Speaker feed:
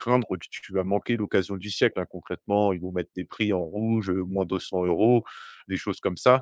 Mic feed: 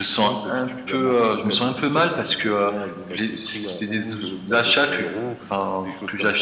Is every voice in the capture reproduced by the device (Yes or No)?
No